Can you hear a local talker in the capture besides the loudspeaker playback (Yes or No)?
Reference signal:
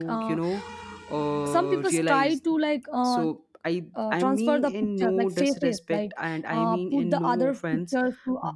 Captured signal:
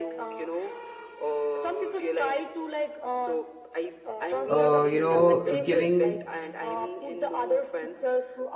Yes